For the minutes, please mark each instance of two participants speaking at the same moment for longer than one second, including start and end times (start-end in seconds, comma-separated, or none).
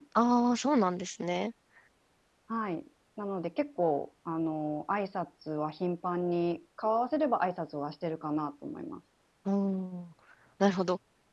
none